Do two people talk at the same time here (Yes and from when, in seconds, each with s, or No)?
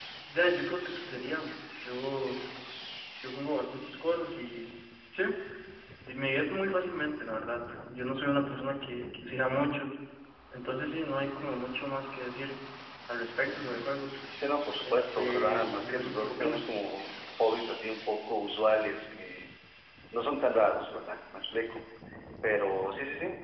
Yes, from 14.8 s